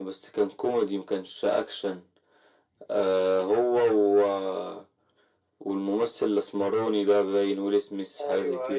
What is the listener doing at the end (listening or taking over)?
taking over